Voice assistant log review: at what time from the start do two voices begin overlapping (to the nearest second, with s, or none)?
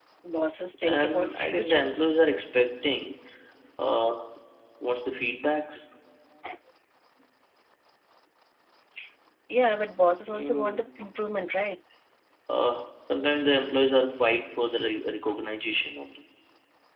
1 s